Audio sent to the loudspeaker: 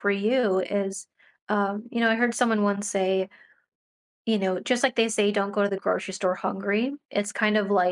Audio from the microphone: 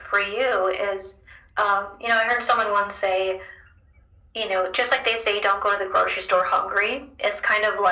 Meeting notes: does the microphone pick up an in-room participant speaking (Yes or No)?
No